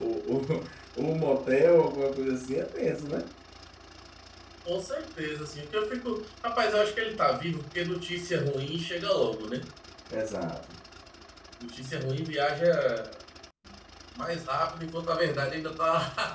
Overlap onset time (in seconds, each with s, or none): none